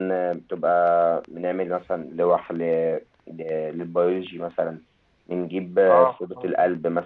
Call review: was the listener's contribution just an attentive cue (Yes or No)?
Yes